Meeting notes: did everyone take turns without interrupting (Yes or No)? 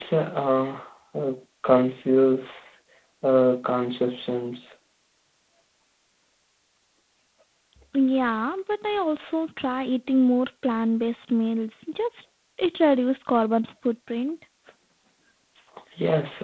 Yes